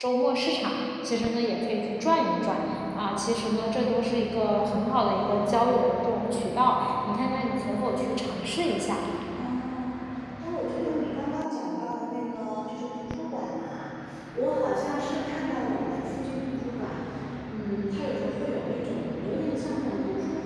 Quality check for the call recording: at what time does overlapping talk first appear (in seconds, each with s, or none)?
none